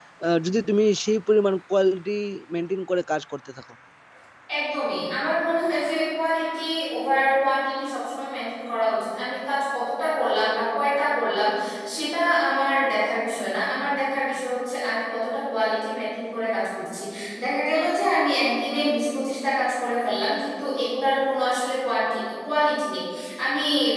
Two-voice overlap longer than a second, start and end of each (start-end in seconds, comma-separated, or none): none